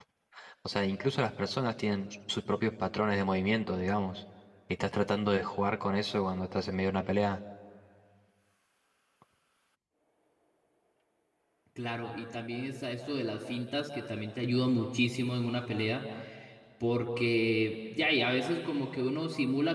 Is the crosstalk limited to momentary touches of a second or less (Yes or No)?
Yes